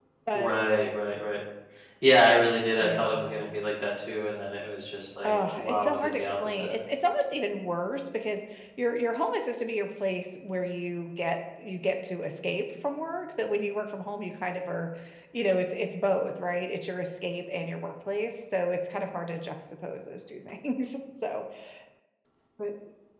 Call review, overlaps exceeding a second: present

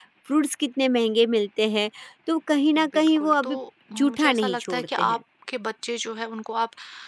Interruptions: present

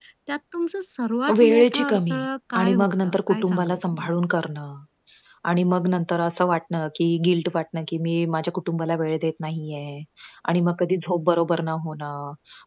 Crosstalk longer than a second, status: present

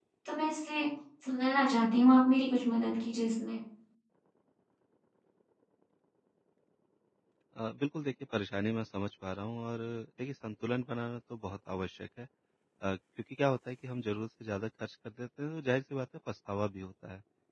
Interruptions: none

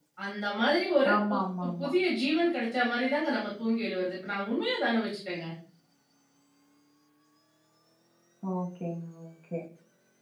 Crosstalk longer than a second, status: none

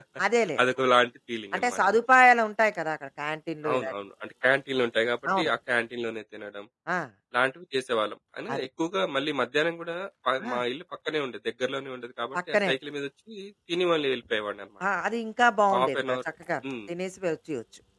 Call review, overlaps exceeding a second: none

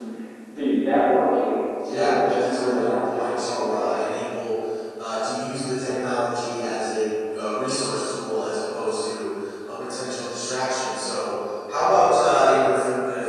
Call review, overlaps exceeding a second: present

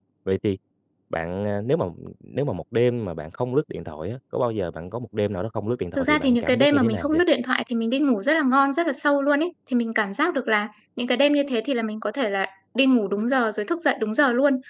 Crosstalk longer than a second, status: present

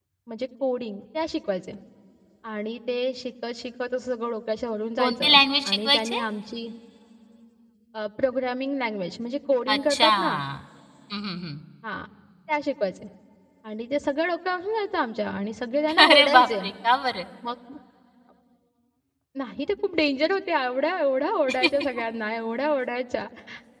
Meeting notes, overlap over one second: present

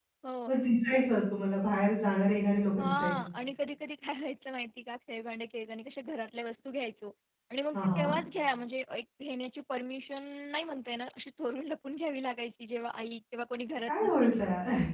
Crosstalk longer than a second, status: none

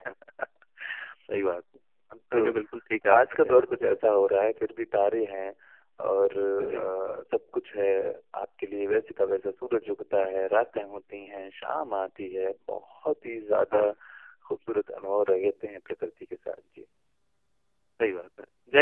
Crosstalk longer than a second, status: none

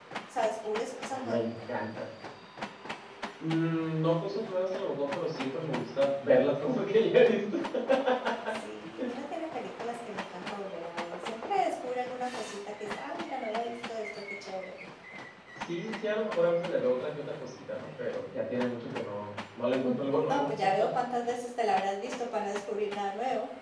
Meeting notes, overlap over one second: none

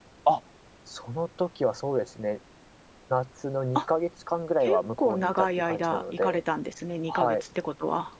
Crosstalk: present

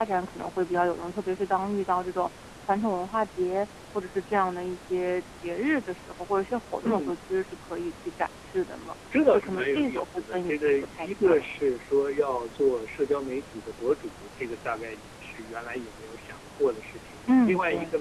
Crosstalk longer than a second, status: present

